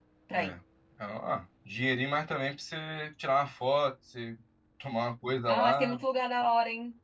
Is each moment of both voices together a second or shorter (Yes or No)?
Yes